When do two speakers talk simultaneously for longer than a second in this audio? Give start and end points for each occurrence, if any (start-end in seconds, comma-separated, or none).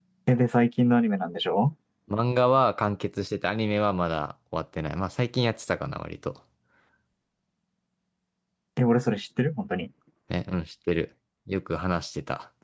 none